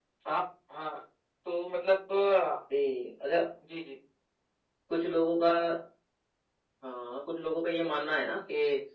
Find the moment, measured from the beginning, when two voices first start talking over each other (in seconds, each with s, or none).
none